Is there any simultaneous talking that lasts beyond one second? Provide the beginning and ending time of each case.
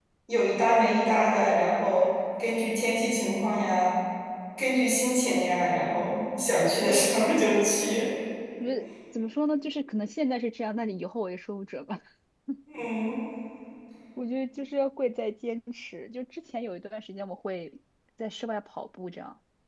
none

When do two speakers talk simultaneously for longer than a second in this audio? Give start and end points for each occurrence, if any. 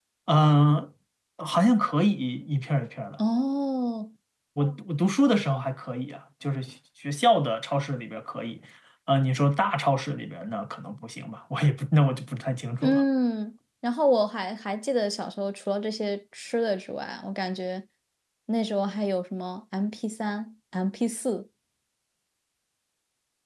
none

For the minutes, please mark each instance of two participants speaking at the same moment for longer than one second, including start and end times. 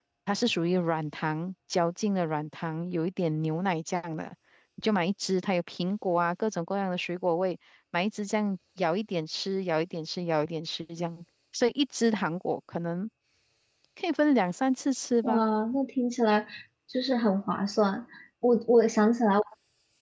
none

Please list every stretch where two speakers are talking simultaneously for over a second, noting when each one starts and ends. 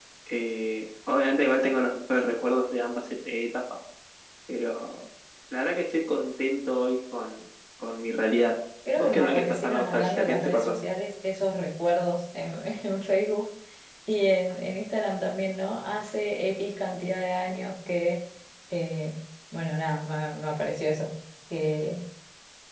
9.0-10.8

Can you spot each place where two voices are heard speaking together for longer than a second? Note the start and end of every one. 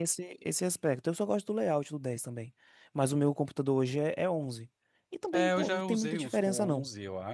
5.3-6.8

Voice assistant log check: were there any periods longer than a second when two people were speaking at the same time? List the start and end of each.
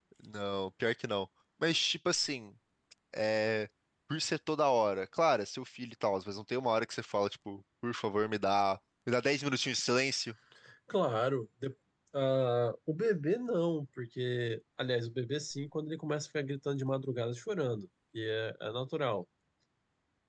none

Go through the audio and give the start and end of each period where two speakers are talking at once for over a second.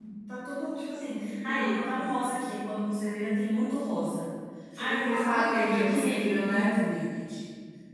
4.8-6.7

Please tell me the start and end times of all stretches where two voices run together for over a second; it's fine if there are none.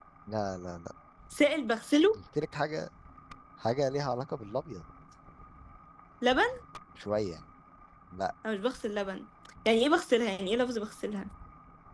none

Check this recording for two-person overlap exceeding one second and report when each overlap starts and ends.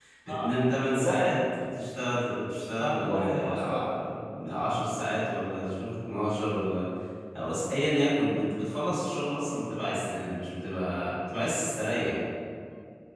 2.8-4.1

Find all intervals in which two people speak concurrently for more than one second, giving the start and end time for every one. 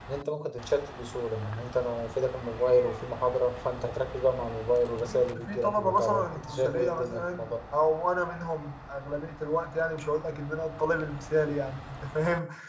5.0-7.5

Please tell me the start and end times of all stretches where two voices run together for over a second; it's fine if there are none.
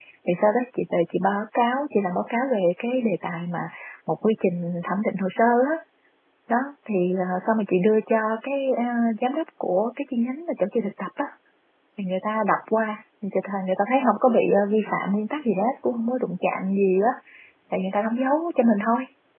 none

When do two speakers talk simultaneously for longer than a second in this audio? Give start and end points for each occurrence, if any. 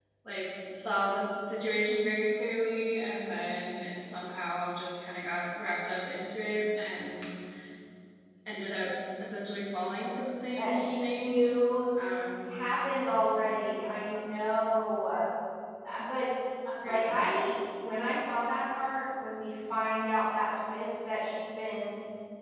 10.6-11.8

